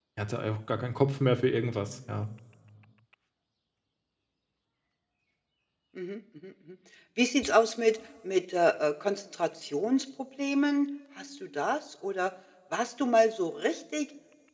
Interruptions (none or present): none